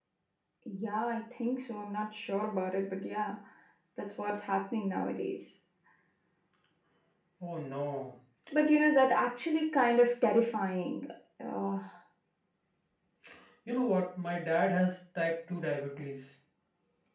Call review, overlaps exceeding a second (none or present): none